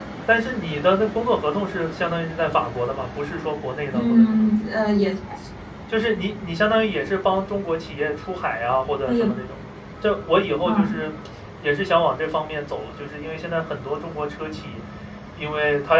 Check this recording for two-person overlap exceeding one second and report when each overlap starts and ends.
none

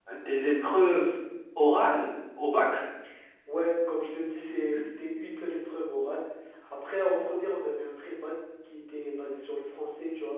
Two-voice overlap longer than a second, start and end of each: none

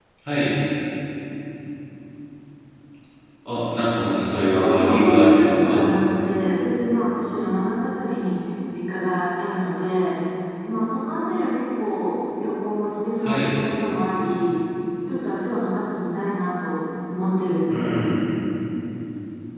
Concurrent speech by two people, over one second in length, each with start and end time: 4.5-5.8

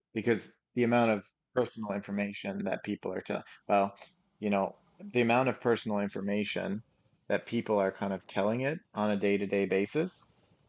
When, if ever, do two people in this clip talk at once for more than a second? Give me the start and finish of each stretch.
none

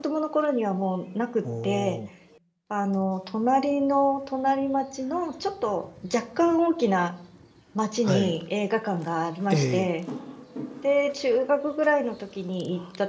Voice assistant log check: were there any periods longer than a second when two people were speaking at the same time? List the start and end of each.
none

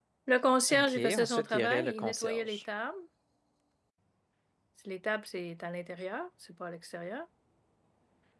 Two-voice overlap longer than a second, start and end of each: 0.7-2.6

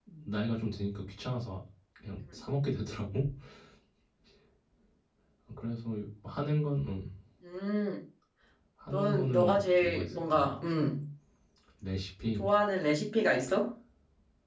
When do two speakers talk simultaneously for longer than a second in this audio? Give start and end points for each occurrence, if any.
8.9-10.6

